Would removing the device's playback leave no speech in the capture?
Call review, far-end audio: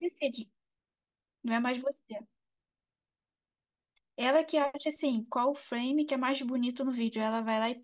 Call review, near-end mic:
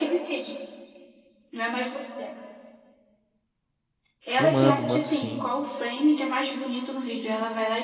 No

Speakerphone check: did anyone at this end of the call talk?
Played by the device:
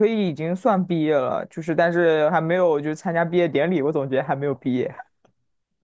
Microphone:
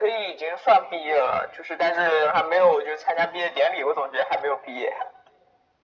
No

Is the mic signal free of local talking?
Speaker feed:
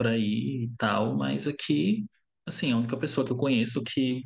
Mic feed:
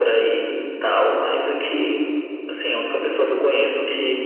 Yes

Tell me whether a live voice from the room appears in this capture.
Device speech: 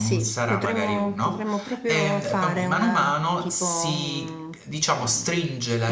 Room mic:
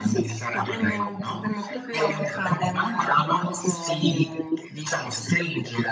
No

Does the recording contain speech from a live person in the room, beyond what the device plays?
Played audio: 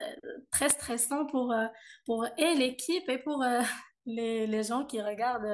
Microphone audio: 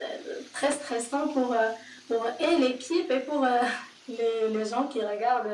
No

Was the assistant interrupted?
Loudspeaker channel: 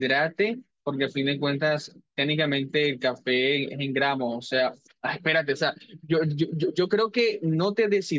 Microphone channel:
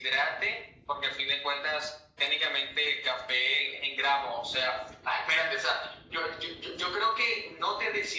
No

